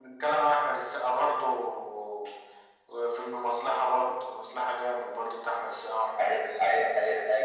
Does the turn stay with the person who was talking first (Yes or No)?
No